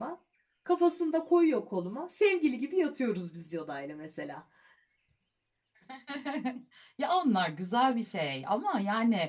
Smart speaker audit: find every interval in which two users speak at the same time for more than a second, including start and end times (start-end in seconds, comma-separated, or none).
none